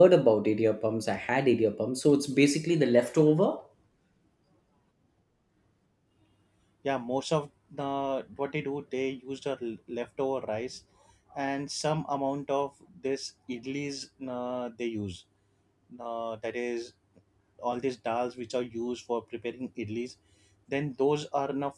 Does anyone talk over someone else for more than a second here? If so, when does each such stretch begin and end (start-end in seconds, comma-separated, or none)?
none